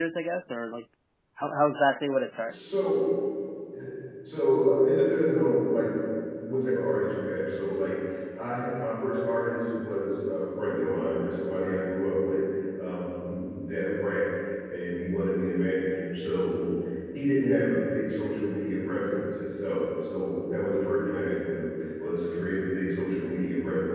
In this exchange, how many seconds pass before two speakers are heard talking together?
none

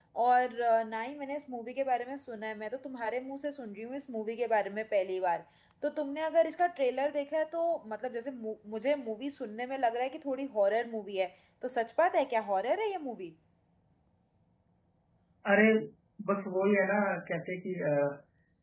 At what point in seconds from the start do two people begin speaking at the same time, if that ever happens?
none

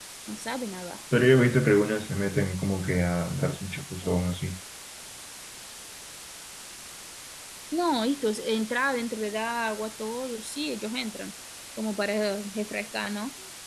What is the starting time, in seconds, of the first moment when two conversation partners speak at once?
none

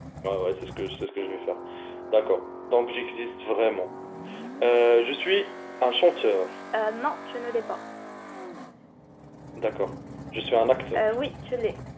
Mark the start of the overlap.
none

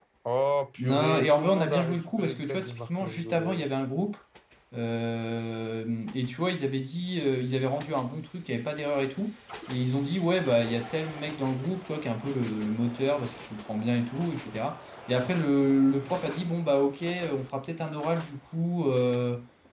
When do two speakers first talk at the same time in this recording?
1 s

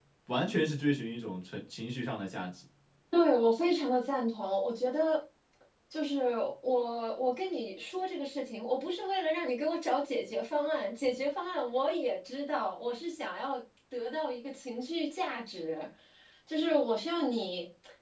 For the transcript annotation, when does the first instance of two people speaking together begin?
none

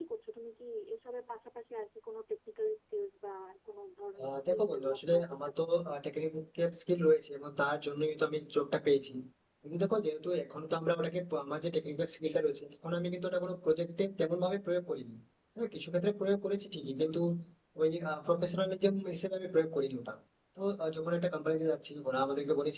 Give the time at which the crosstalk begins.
4 s

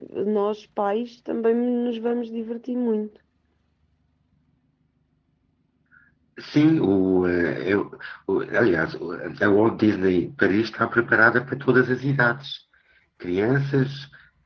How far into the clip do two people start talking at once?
none

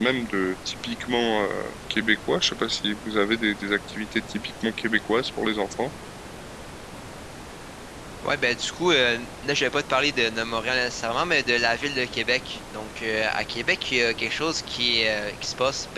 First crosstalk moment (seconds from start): none

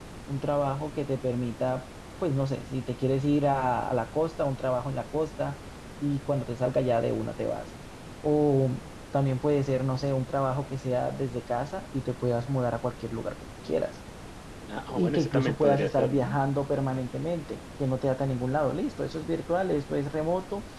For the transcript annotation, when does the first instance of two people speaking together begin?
15 s

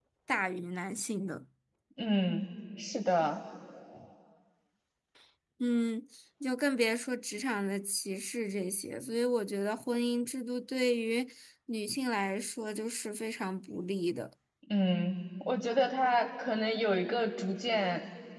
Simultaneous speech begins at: none

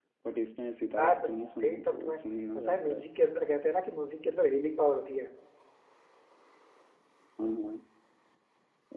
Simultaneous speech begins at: 1 s

